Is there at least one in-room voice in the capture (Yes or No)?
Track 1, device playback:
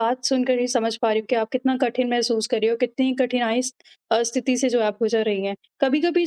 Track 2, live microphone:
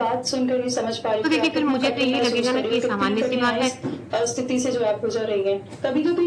Yes